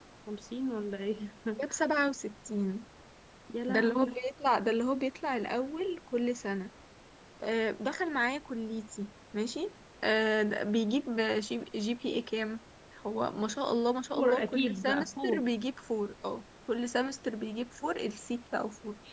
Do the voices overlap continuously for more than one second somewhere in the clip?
Yes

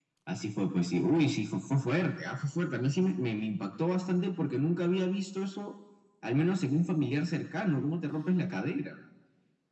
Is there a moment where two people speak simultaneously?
No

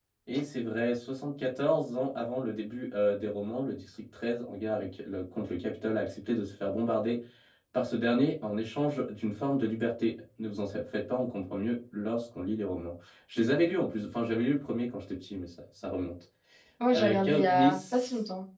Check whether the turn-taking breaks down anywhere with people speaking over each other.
Yes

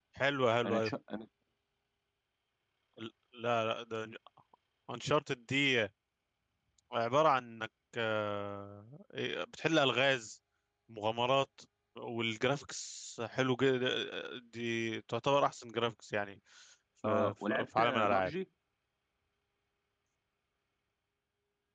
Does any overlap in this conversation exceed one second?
Yes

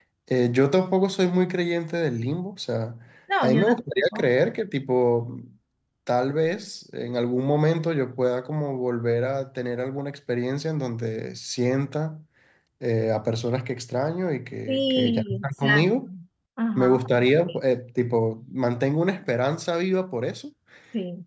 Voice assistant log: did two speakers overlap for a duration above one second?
Yes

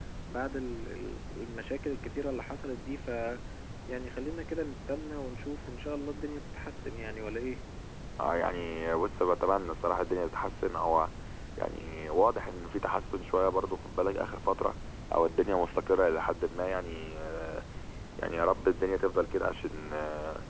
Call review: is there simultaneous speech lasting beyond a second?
No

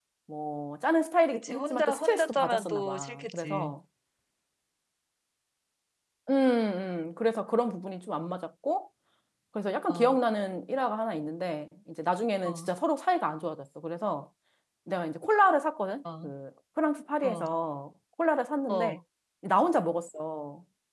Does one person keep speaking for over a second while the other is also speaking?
Yes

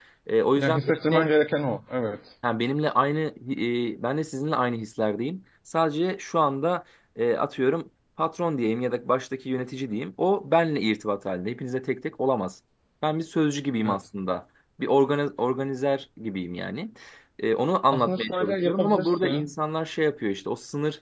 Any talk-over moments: Yes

